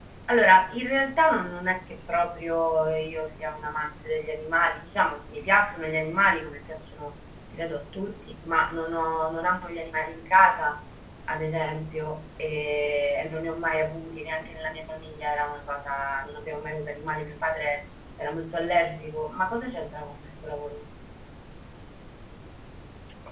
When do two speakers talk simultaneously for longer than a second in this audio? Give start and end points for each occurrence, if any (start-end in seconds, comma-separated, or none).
none